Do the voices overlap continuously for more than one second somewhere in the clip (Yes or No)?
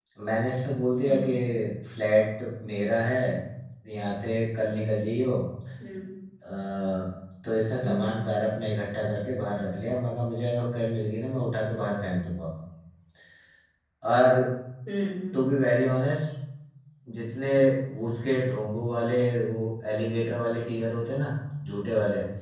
No